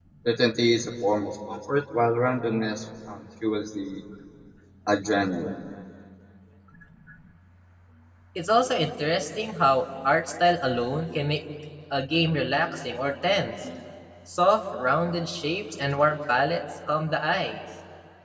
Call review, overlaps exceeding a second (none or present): none